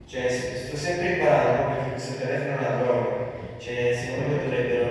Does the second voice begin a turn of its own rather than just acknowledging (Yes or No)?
No